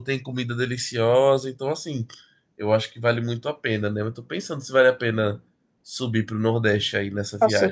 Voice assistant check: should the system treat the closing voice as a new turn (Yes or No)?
Yes